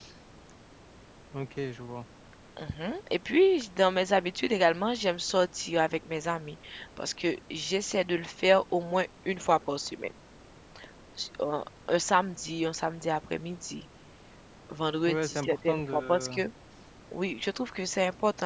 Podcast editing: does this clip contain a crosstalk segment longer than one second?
Yes, from 15.1 s

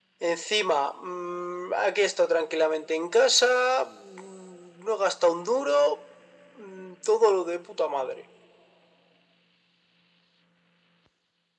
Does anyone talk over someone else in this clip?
No

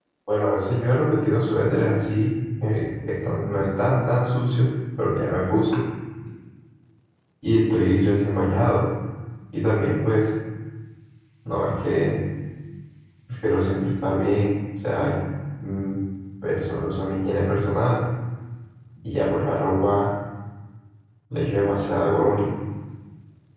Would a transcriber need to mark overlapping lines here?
No

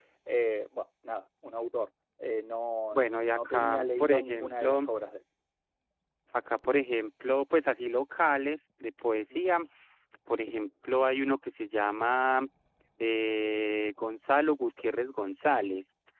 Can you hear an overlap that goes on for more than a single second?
Yes, from 2.9 s

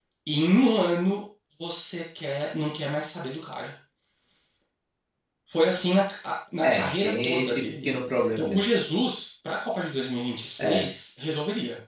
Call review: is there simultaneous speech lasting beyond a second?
Yes, from 6.6 s

